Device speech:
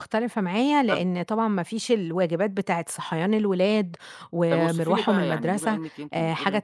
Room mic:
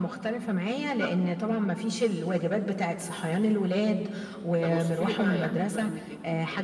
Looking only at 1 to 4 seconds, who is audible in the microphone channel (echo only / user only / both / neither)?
echo only